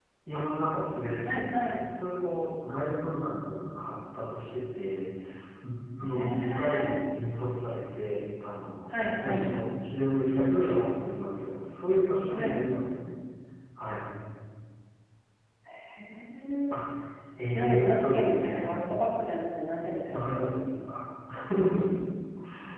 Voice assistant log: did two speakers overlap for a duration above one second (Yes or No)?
Yes